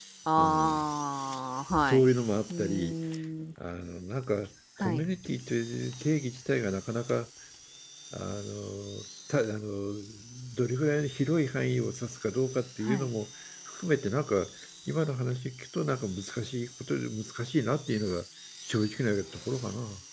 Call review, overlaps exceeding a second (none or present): none